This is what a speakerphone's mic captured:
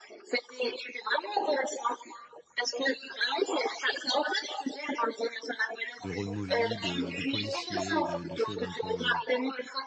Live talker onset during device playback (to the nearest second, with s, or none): 6 s